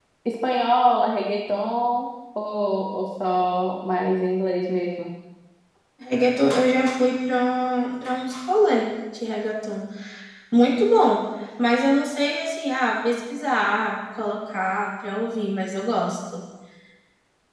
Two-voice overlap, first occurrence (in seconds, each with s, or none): none